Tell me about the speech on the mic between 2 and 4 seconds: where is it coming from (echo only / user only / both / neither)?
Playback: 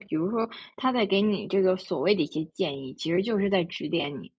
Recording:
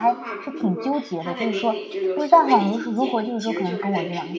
both